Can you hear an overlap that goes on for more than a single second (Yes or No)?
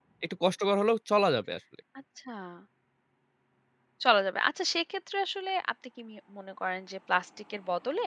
No